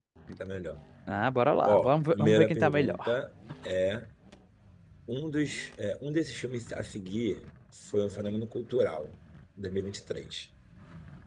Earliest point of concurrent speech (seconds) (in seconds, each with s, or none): 1.7 s